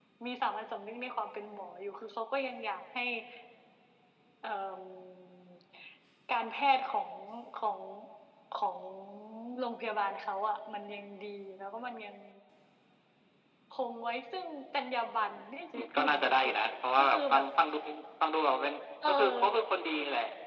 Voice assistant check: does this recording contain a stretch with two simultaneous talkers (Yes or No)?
Yes